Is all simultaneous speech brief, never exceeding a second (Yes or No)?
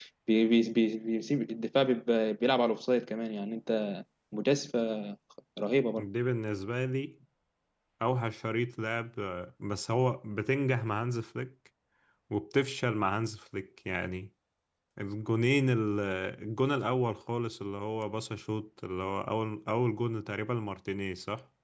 Yes